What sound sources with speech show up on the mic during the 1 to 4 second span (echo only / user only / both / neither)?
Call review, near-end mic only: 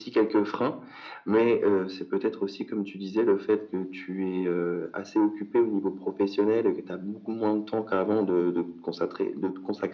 echo only